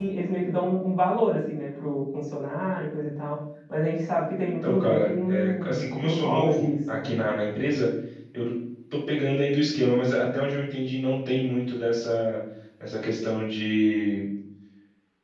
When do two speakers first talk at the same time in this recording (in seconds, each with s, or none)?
4.4 s